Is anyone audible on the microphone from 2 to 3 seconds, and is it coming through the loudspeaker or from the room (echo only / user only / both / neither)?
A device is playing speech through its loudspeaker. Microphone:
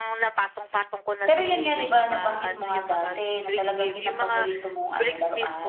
both